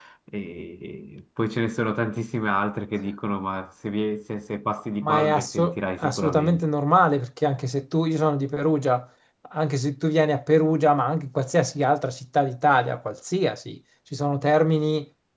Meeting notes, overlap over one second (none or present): present